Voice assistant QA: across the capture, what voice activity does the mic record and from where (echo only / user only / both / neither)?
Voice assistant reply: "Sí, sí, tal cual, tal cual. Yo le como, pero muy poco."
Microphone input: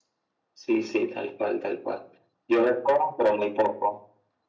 echo only